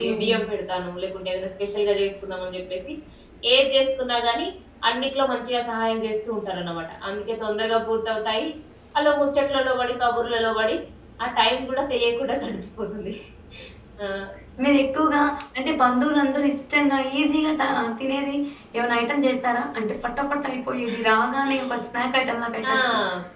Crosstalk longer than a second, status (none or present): none